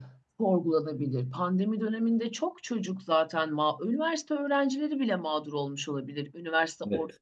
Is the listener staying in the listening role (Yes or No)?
Yes